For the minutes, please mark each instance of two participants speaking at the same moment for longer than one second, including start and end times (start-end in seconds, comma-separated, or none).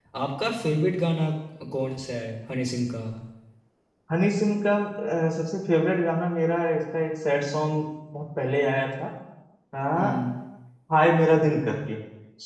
none